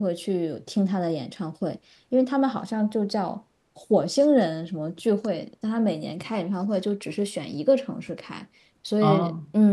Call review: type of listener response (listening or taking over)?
listening